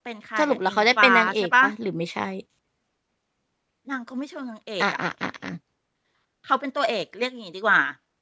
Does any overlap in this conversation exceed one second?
Yes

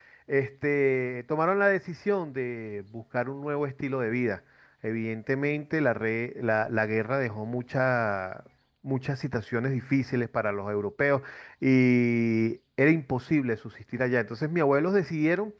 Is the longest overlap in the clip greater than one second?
No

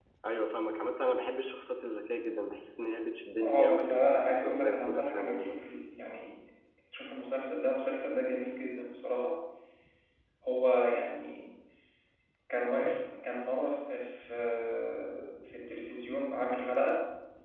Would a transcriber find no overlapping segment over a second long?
No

